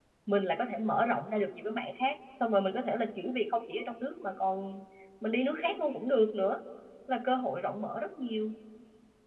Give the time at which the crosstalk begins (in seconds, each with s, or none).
none